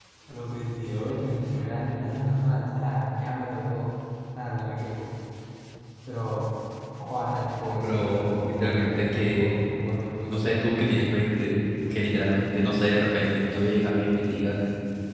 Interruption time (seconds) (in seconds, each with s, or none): 7.8 s